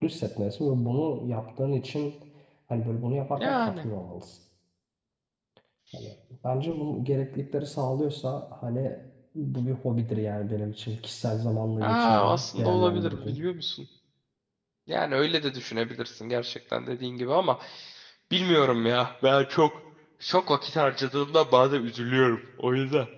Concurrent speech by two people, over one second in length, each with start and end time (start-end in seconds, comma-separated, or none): 11.8-13.4